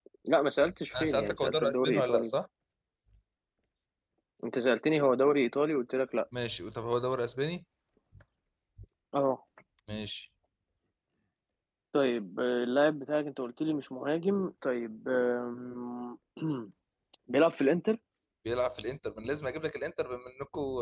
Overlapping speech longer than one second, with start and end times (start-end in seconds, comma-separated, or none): 1.0-2.4